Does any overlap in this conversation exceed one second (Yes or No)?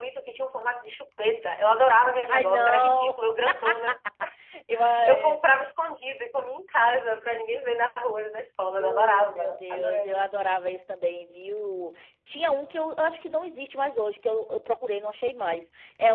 Yes